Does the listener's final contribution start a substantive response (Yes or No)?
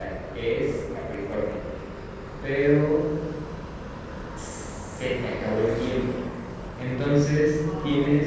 No